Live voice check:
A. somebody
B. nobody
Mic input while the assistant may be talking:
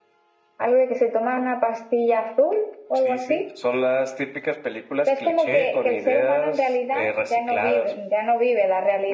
B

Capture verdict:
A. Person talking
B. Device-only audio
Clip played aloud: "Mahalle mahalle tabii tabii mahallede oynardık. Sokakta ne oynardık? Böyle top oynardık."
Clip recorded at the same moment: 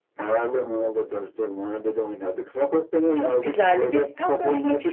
A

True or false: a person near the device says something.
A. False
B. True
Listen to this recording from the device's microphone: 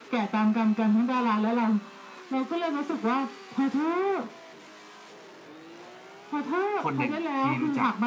B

